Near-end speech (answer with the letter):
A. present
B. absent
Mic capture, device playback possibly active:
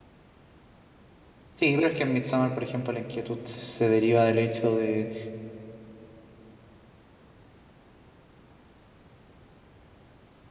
A